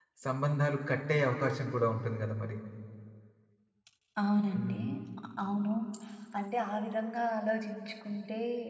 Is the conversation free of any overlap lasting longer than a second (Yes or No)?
Yes